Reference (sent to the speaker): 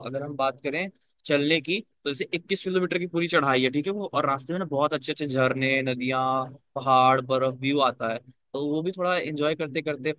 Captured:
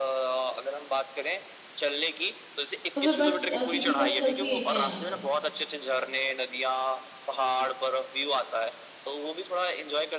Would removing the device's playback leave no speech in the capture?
No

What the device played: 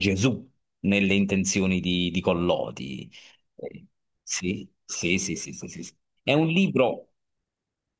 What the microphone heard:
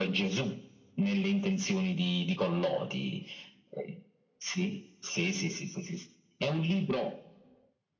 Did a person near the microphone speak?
No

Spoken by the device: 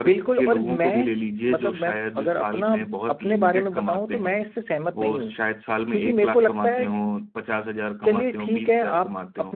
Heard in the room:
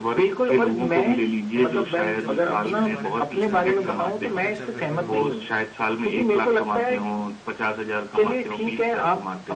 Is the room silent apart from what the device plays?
No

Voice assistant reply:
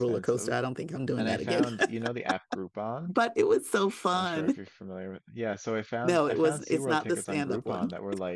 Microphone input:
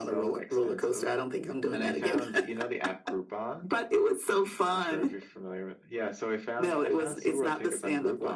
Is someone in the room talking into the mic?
No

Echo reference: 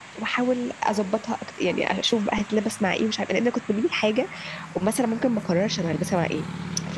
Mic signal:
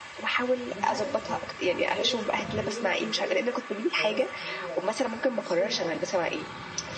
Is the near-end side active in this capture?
Yes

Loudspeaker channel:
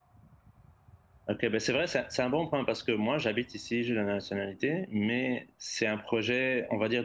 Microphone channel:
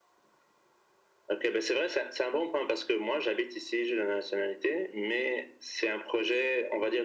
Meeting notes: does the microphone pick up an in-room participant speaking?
No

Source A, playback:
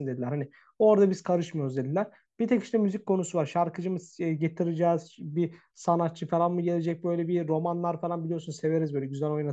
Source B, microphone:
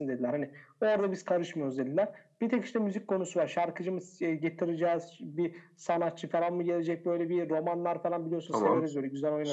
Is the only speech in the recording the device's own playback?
No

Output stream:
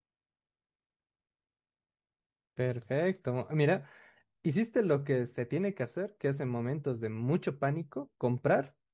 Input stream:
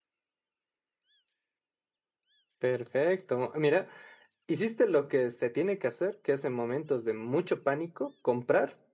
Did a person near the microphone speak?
No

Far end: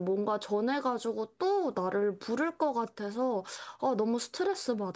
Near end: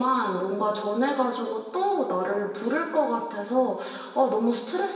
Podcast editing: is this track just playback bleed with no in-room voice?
Yes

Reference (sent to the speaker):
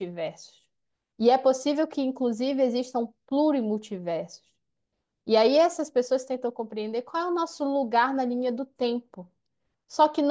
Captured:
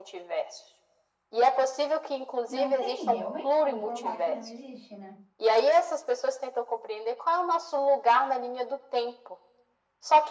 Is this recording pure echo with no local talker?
No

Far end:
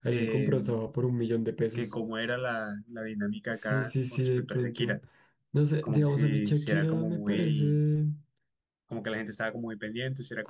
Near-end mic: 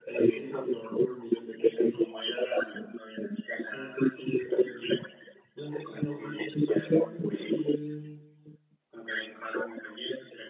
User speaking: No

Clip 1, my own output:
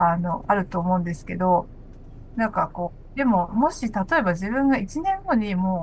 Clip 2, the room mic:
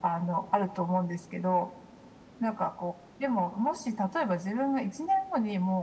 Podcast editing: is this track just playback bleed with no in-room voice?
Yes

